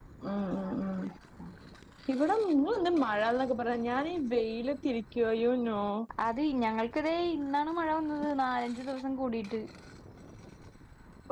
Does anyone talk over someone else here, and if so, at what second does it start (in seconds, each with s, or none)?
none